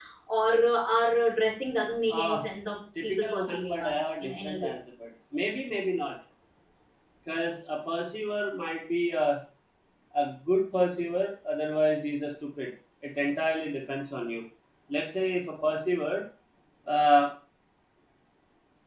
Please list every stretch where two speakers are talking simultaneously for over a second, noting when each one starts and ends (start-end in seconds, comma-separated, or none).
3.0-4.7